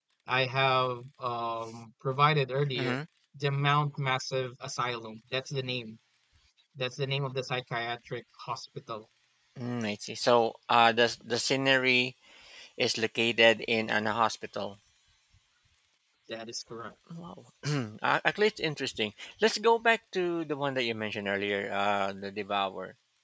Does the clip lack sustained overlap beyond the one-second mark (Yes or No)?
Yes